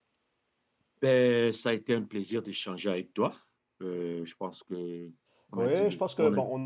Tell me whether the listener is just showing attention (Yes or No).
No